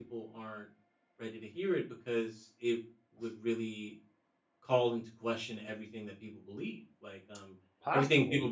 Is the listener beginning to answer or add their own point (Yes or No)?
No